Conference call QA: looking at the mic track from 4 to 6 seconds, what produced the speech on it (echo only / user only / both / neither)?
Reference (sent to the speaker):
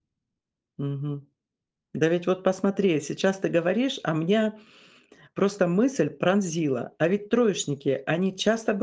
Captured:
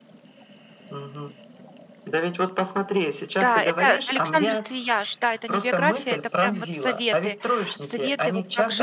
both